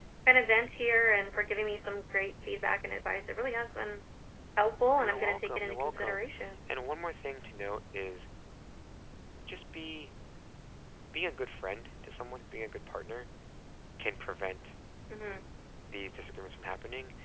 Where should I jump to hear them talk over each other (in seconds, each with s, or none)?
5.0 s